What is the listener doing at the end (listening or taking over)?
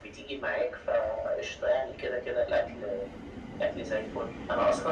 listening